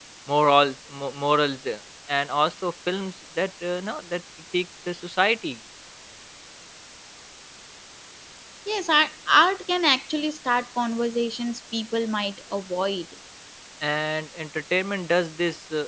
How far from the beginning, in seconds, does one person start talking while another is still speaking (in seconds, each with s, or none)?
none